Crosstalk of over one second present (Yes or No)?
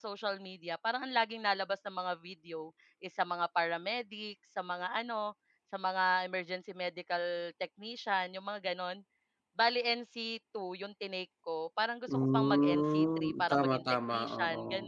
Yes